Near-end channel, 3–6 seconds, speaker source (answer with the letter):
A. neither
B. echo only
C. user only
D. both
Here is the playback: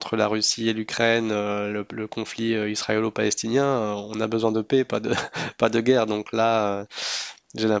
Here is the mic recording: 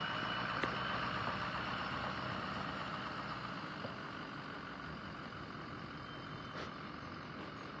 A